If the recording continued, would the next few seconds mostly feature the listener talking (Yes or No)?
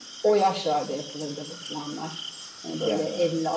No